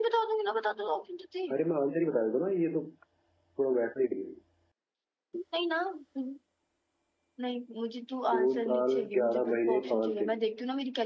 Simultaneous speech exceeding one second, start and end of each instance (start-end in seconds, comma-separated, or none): 8.3-10.3